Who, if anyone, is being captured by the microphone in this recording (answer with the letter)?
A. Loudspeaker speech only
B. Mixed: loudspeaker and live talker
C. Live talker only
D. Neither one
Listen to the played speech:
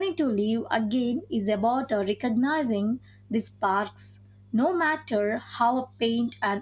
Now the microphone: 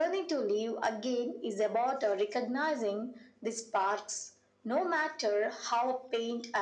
A